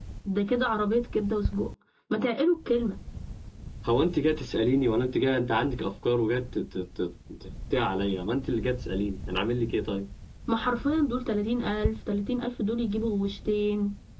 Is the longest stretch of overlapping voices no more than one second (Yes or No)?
Yes